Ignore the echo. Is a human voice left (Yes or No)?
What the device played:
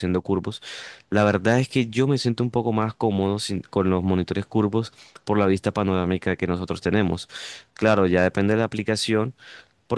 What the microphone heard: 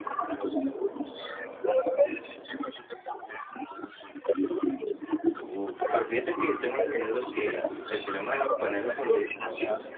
Yes